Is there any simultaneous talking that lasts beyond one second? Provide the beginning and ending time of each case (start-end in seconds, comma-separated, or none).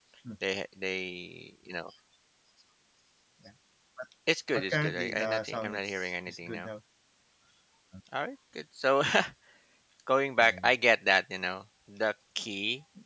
4.5-6.7